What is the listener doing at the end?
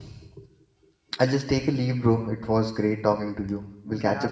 taking over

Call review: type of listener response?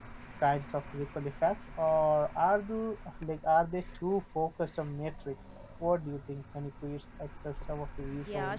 taking over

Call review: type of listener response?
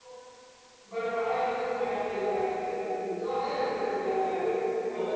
listening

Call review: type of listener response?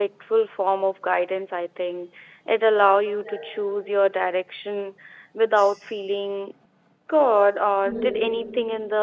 listening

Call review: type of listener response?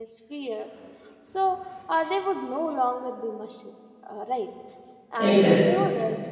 listening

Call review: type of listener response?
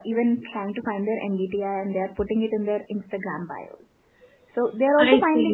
listening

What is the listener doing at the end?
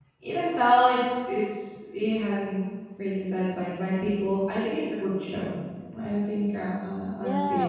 taking over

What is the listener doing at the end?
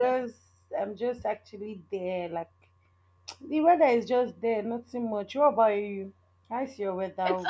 taking over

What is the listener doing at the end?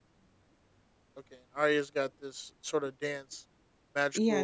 taking over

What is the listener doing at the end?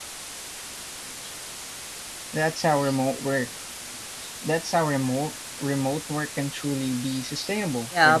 taking over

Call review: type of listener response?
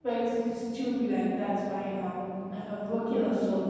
listening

